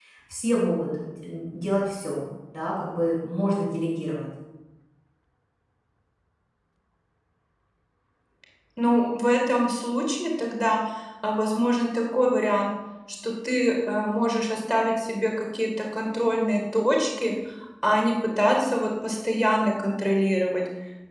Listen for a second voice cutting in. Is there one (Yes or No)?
No